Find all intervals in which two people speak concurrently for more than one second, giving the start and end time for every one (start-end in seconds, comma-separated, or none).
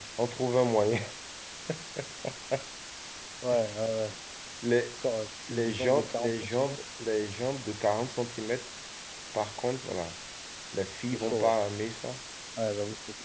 5.5-6.8